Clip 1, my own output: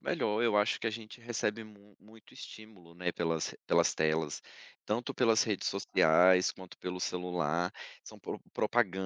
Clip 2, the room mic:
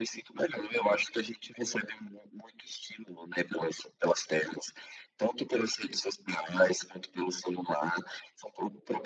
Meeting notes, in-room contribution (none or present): none